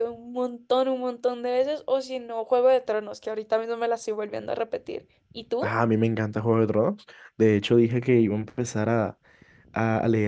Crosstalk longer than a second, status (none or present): none